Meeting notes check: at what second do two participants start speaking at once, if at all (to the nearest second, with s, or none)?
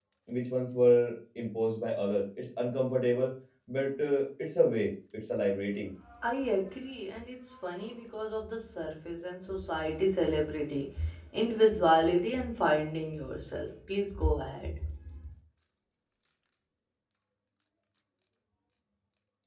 none